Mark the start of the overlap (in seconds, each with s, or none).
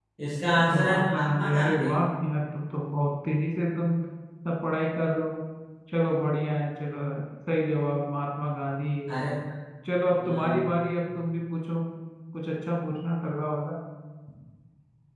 0.6 s